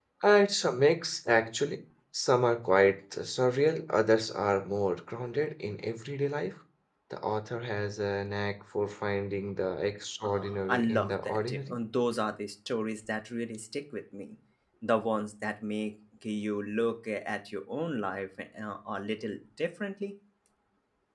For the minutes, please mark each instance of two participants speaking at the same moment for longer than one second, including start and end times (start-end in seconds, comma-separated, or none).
10.2-11.8